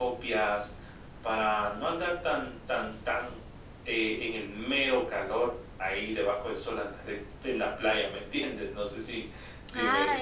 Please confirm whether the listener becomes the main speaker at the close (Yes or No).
Yes